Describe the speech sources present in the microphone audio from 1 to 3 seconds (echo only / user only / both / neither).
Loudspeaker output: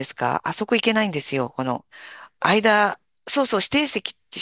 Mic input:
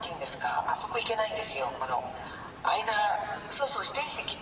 echo only